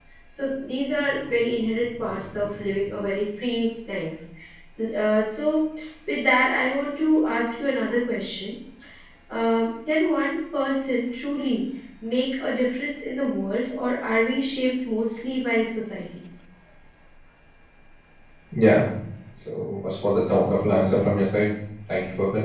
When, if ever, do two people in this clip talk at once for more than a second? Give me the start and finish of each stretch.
none

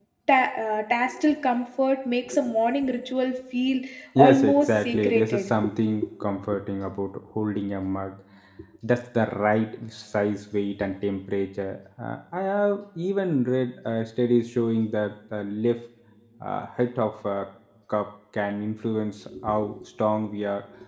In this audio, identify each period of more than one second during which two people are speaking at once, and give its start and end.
4.2-5.5

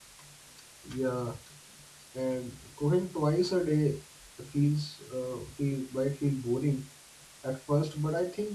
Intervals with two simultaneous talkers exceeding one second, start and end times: none

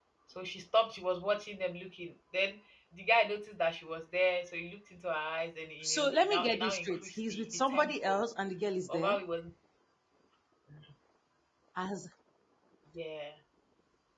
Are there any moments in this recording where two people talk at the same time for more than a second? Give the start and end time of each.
5.8-8.3

